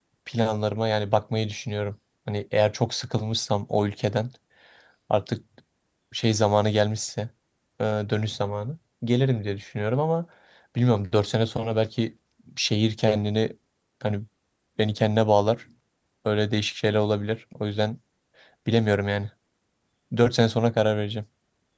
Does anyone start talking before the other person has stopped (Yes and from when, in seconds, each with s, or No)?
No